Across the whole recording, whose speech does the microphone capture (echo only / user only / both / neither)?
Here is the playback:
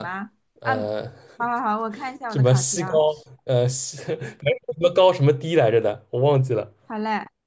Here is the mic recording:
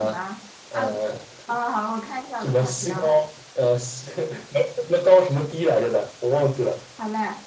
echo only